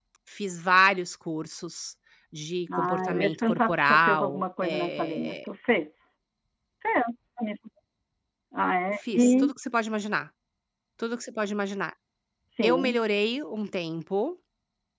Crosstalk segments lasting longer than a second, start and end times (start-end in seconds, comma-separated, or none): 2.8-5.4